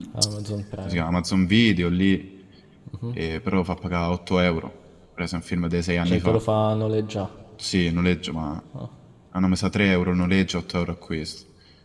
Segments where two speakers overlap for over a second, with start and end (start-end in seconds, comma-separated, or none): none